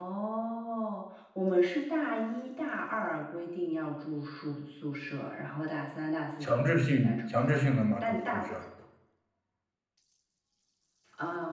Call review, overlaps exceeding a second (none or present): present